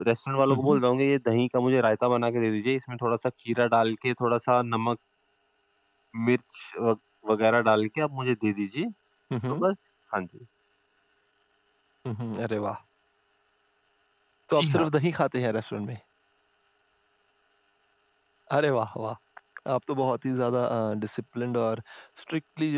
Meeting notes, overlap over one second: none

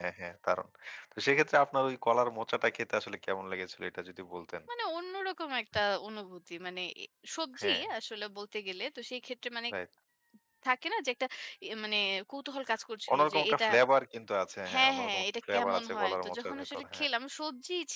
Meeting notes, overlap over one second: present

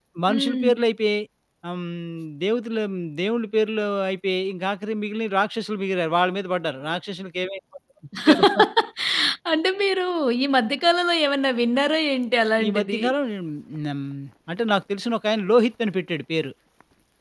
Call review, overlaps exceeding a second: none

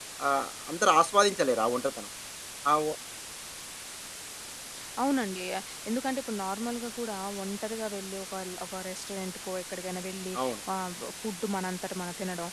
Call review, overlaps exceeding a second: none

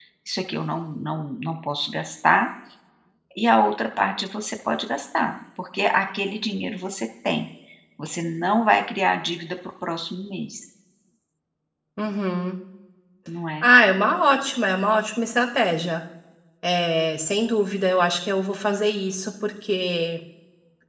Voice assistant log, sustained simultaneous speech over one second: none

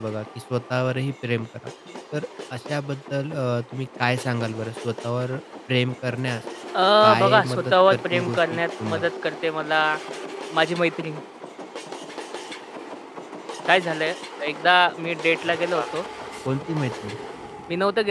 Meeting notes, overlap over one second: present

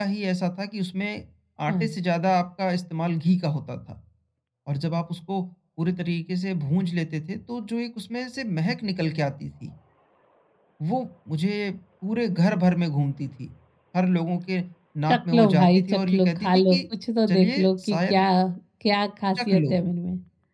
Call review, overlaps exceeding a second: present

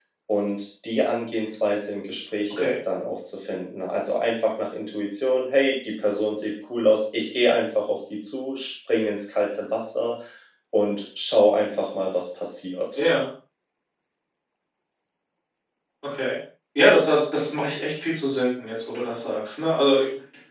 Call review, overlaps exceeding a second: none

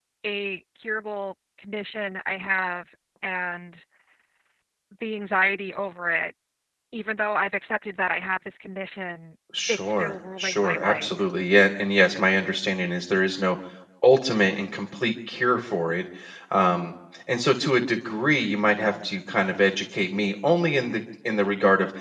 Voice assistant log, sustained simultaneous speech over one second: present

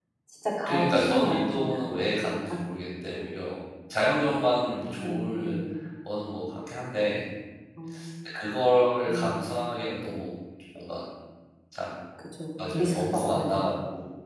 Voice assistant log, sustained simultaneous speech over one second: present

